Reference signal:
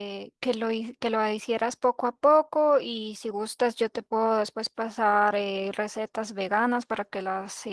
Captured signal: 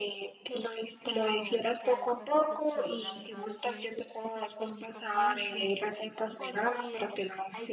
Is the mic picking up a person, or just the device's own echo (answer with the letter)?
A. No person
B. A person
B